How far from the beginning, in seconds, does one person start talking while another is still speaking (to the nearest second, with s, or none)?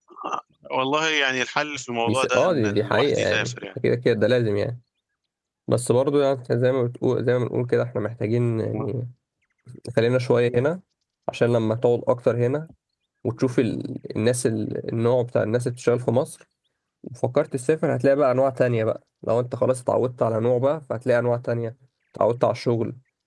2 s